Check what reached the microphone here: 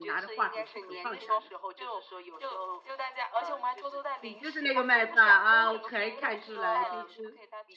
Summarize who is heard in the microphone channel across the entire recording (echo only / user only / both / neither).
both